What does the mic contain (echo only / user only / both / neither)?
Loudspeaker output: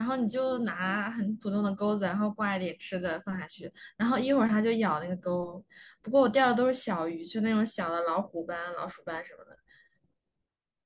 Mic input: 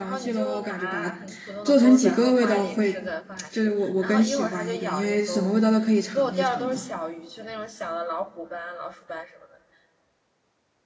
both